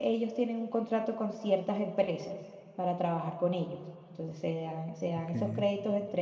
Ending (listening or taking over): listening